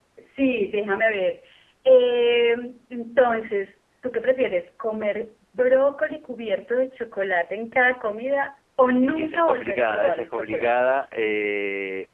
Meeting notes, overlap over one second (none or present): present